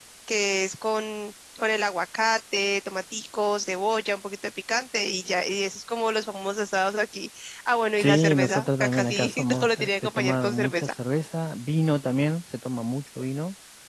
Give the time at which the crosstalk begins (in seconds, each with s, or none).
8.0 s